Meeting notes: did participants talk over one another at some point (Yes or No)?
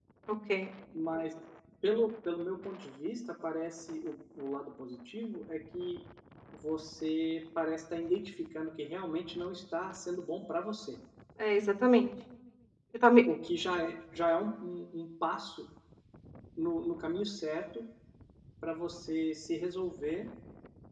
No